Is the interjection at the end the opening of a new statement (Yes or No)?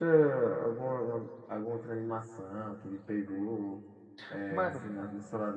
No